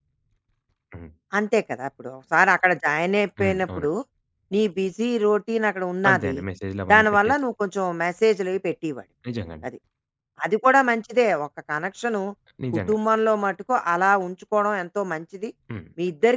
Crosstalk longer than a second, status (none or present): none